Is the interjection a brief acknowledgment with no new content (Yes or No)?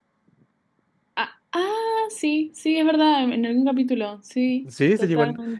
No